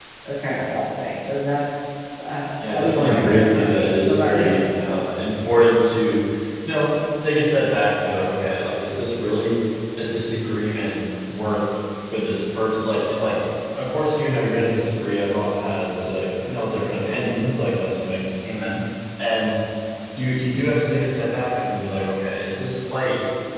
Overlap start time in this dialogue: 3 s

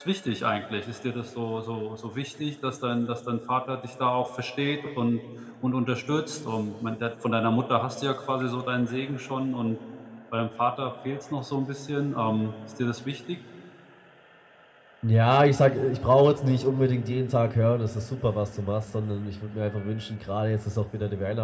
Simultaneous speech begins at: none

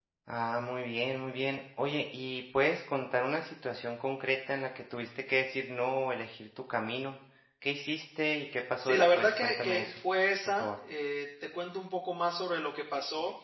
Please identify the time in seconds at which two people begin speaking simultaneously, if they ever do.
9 s

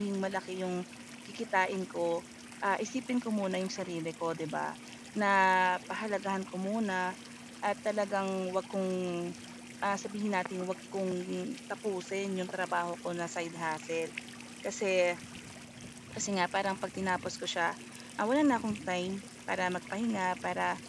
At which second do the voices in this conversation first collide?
none

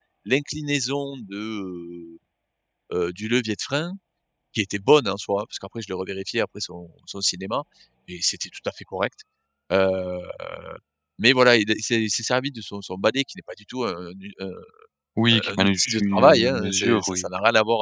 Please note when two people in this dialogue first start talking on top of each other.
15 s

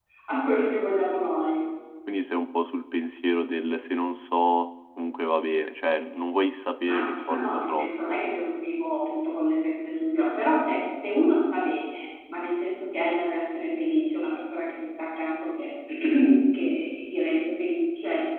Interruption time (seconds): 7 s

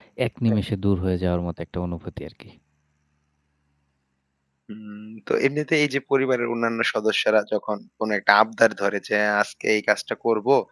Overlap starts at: none

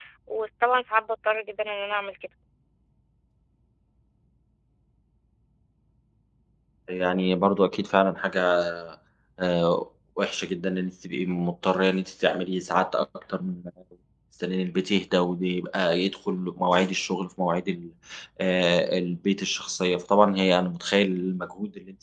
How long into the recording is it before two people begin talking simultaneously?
none

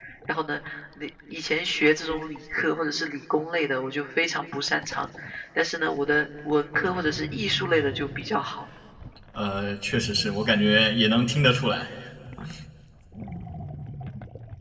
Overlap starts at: none

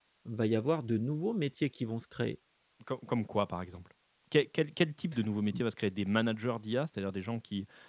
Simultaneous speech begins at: none

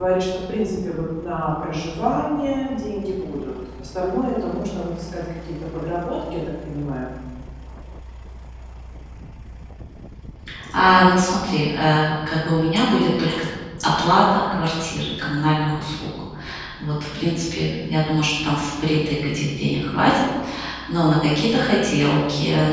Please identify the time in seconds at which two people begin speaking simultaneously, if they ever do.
none

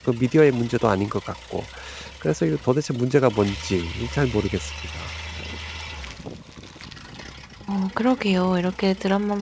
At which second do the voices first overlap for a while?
none

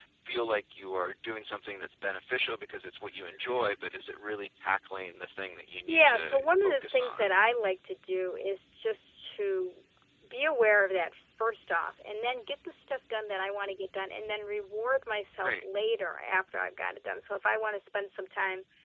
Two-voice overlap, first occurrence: 6 s

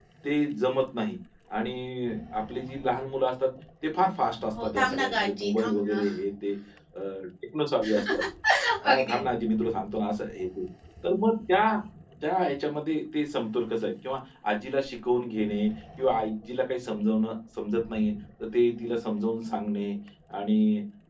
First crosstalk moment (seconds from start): 5 s

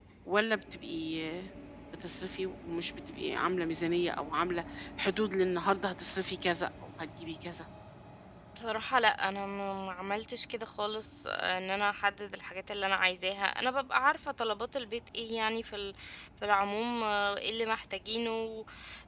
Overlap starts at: none

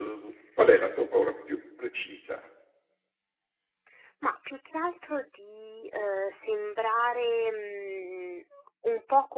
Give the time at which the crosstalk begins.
none

